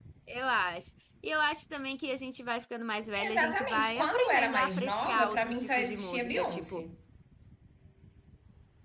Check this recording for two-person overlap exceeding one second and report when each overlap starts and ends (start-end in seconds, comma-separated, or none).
3.2-6.8